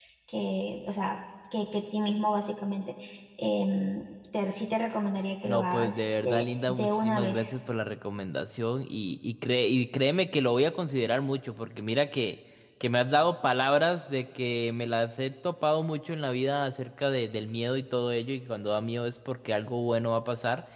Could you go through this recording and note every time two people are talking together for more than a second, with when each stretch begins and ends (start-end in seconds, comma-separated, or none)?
5.5-7.5